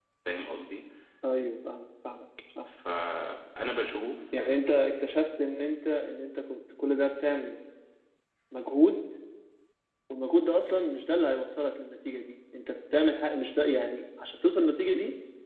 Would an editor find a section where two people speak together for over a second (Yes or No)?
No